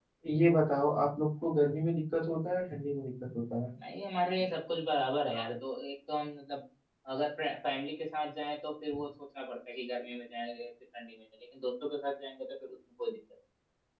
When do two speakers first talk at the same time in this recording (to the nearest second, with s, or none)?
none